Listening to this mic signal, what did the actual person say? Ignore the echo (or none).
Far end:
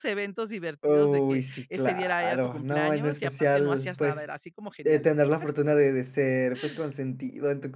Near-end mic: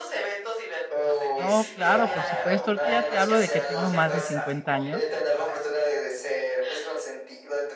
No, claro, por supuesto. Ahorita ya te hablo de que tengo más de 50 años